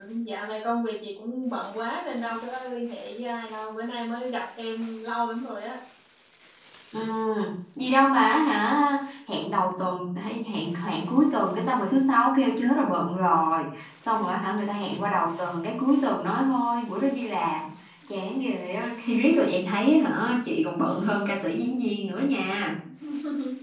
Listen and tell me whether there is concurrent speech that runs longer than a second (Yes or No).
No